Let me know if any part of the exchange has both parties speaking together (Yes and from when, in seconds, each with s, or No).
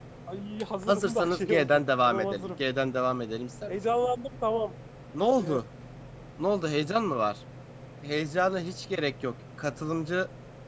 Yes, from 0.9 s